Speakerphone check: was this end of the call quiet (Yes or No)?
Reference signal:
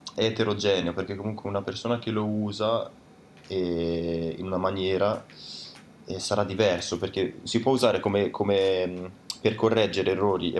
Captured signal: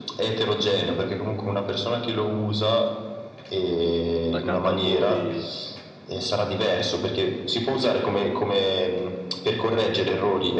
No